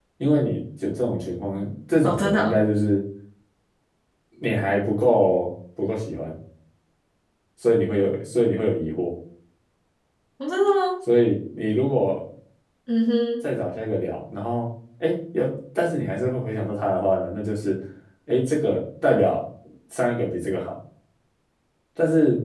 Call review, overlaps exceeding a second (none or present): none